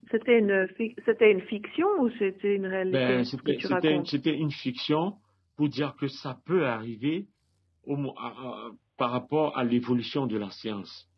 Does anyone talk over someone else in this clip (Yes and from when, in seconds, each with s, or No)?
Yes, from 2.9 s